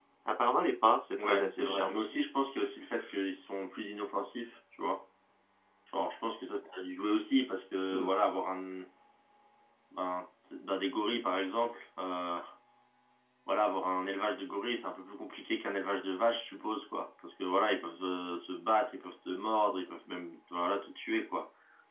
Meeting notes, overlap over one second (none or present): present